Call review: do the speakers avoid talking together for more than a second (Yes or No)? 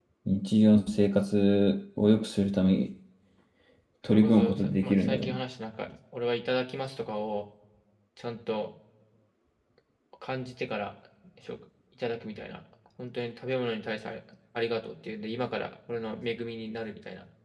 No